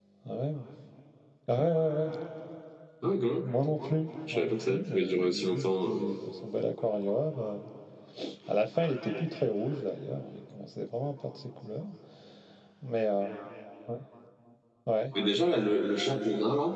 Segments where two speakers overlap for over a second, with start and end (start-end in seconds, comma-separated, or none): 4.3-6.0